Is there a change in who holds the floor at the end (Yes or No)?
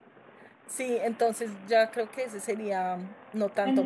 Yes